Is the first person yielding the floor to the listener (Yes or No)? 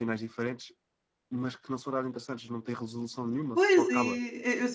Yes